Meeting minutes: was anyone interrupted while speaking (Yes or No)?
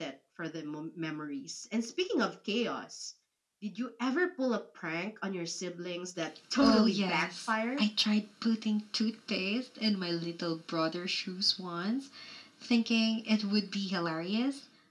Yes